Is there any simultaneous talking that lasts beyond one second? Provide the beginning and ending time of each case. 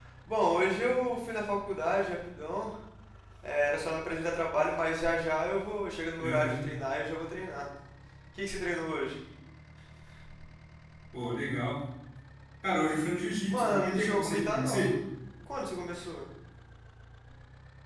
13.5-14.9

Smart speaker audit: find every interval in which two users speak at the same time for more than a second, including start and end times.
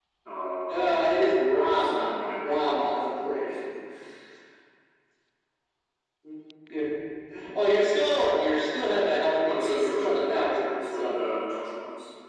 1.7-3.5, 9.2-11.2

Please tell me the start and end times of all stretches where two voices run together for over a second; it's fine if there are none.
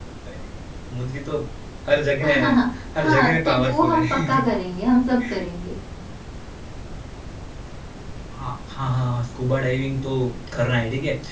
3.0-4.4

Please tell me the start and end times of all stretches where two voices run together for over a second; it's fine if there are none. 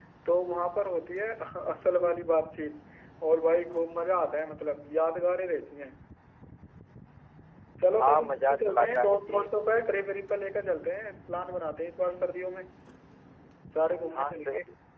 8.0-9.5

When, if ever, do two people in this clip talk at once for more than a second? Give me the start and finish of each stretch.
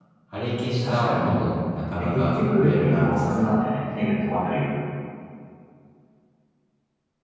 2.1-3.5

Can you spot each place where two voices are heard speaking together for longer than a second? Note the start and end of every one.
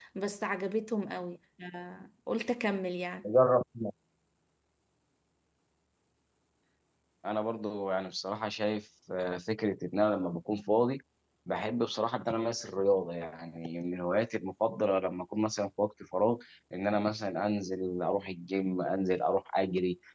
none

